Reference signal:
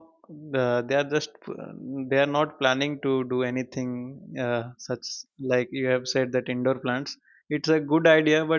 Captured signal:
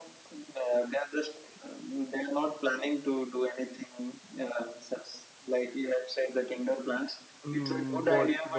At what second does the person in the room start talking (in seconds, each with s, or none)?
7.4 s